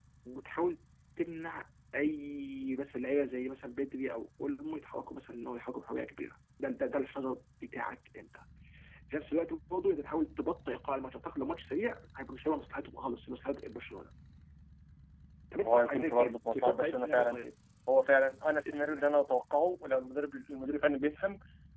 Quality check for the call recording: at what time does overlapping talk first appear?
15.6 s

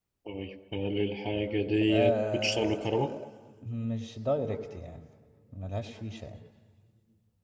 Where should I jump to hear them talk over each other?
1.8 s

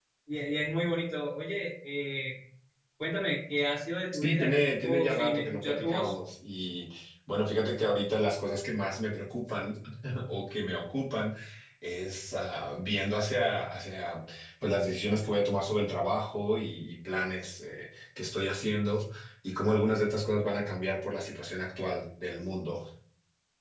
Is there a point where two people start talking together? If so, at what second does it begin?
4.1 s

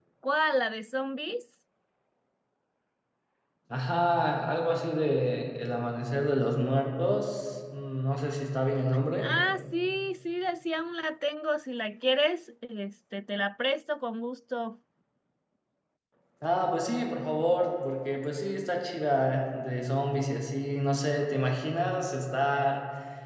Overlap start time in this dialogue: none

